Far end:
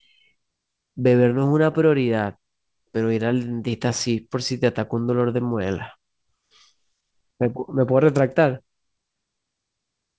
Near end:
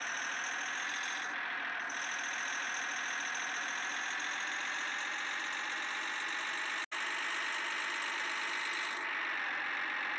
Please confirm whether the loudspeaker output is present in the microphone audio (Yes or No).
No